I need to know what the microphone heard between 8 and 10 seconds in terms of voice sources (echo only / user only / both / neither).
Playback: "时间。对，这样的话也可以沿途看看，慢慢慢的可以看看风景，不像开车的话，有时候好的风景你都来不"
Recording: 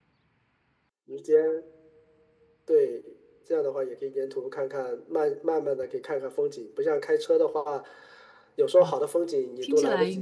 both